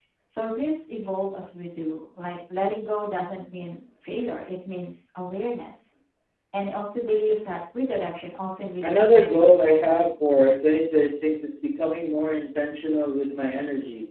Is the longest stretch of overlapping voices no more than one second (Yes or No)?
No